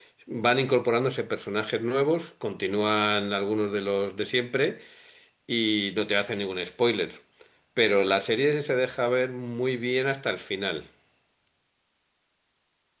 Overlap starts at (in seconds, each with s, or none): none